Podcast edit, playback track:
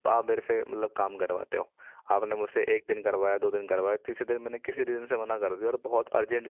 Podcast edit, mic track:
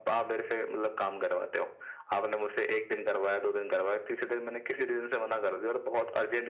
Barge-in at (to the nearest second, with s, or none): none